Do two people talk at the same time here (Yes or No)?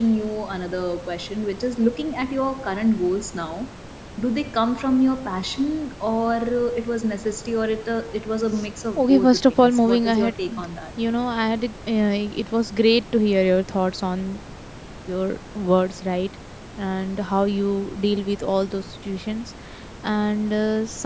Yes